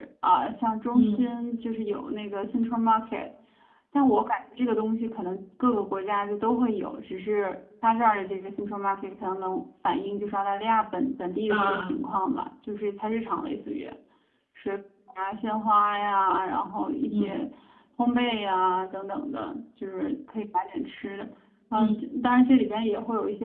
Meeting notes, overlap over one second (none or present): none